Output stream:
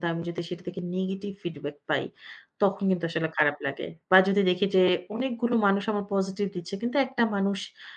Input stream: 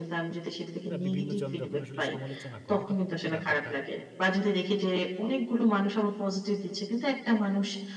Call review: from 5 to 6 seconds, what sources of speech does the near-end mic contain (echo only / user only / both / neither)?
echo only